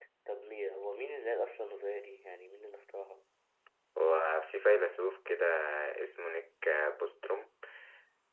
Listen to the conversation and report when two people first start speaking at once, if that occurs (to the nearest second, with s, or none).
none